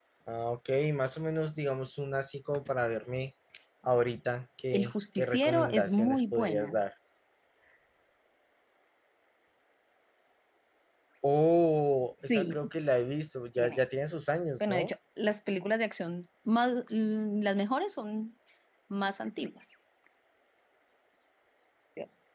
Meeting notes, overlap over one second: present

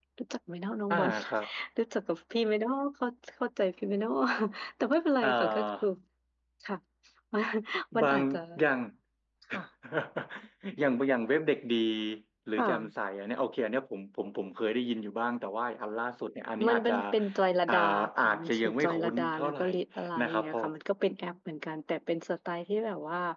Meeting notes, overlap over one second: present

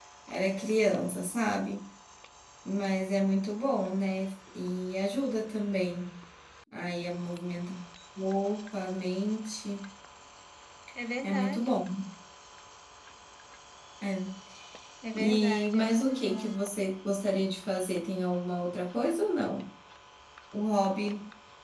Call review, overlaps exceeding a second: present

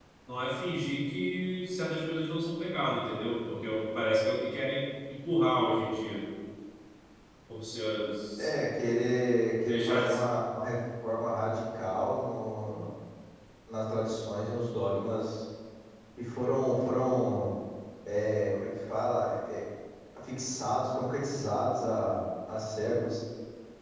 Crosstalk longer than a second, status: none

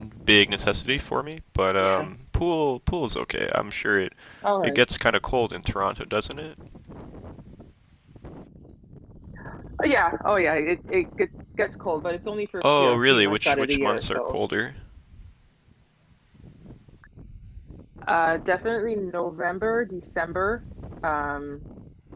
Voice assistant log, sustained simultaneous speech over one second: present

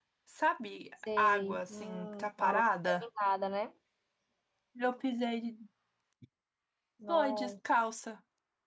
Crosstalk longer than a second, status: present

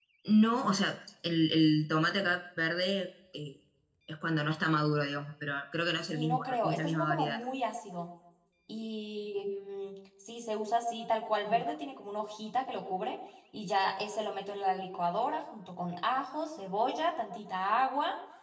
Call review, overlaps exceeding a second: present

